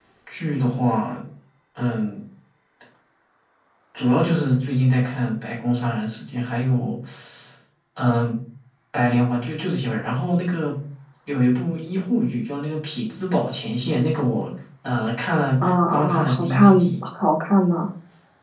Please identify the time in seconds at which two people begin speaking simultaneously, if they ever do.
15.6 s

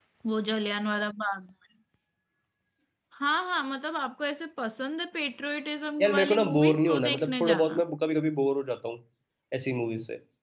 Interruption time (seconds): 6.0 s

